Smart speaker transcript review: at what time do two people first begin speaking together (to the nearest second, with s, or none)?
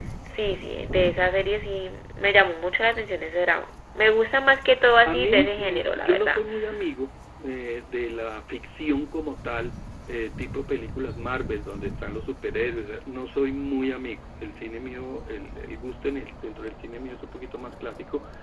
5 s